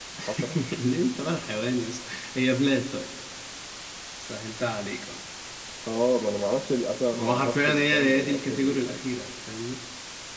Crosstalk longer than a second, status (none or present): present